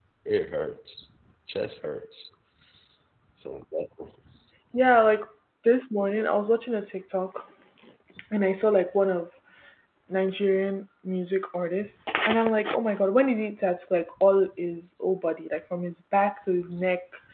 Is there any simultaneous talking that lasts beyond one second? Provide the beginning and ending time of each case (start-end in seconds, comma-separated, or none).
none